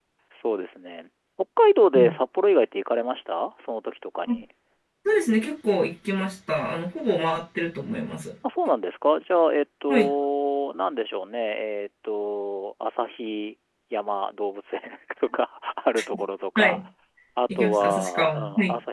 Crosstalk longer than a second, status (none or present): present